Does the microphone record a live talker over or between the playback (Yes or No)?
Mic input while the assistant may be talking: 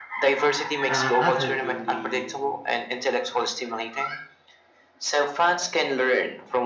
Yes